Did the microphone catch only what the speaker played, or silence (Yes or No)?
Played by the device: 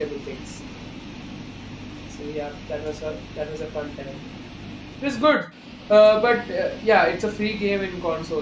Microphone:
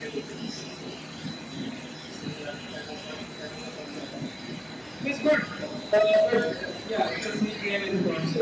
Yes